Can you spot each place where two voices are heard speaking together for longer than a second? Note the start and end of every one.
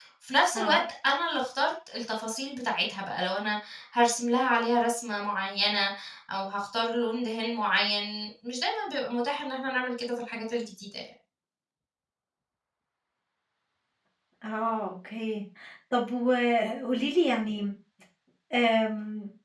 none

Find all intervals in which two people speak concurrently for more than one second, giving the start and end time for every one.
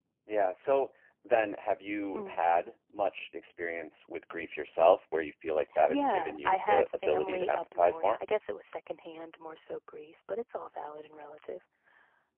5.9-8.2

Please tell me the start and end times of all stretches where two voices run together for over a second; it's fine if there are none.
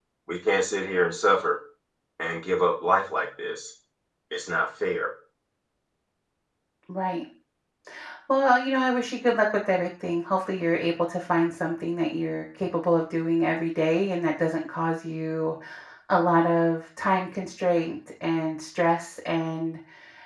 none

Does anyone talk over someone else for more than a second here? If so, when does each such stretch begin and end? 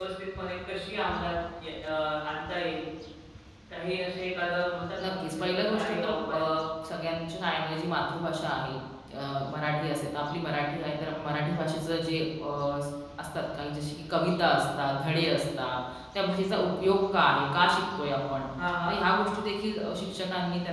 5.0-6.4

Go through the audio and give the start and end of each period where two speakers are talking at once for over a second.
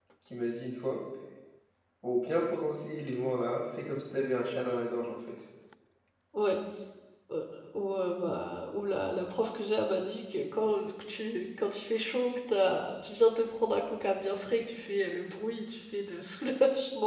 none

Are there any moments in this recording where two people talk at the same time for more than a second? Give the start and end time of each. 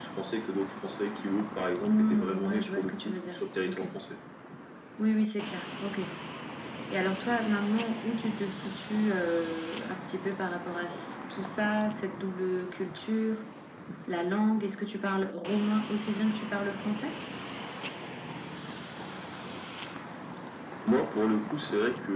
1.9-3.8

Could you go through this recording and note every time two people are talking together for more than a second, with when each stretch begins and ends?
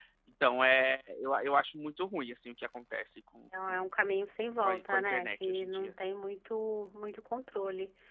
4.6-5.9

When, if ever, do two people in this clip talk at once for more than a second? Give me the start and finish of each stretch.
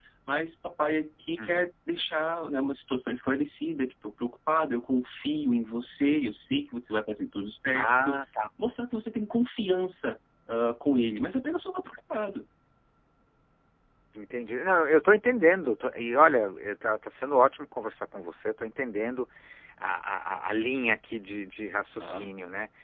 none

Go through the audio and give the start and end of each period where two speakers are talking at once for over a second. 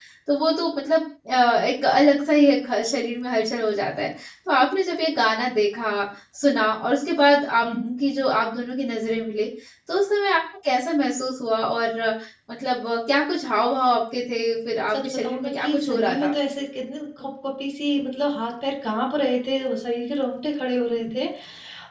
14.9-16.3

